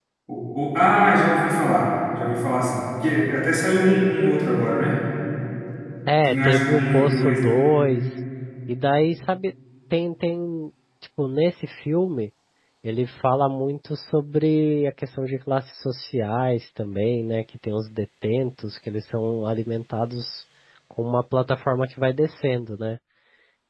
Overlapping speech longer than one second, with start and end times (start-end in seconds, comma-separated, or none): 6.3-7.6